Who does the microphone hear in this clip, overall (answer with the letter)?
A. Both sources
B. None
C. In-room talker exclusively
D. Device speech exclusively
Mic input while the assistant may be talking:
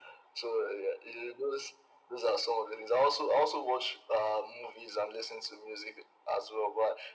D